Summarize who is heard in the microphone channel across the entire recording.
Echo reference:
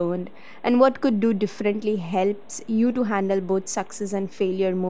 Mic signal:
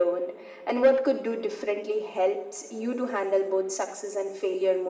echo only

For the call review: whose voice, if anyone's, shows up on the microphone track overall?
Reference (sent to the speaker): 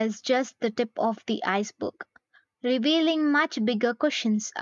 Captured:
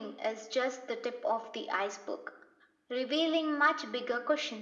echo only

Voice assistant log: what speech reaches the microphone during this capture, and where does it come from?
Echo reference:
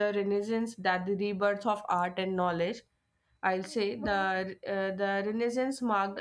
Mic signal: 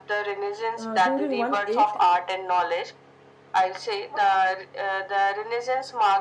both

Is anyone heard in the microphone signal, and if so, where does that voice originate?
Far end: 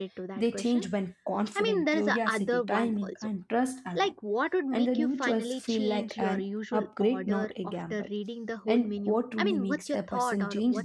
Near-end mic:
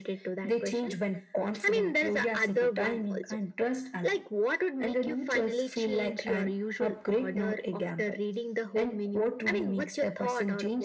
echo only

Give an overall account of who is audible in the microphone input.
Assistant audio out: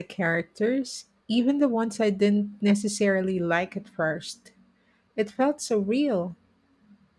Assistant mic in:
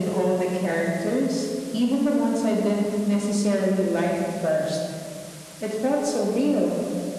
echo only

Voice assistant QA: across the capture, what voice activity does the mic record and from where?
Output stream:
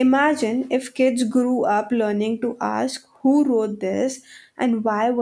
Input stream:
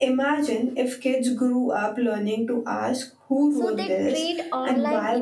both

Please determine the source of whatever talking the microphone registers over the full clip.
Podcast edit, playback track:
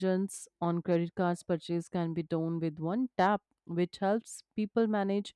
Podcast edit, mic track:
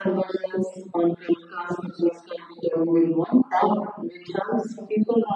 echo only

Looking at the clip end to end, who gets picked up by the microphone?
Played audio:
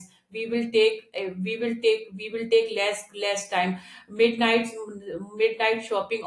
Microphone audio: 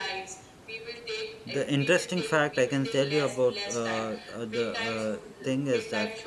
both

